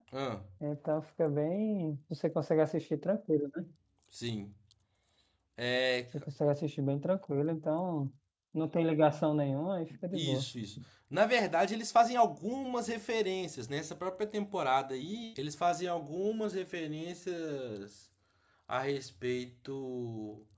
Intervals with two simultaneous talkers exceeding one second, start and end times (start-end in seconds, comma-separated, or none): none